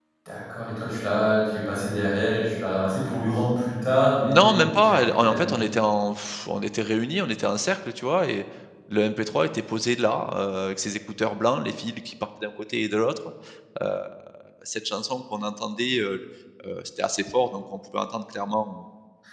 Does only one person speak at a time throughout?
No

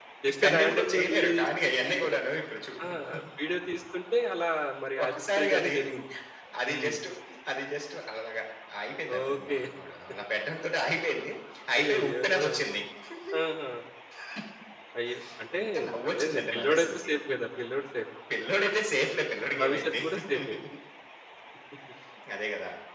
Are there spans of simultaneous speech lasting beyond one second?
Yes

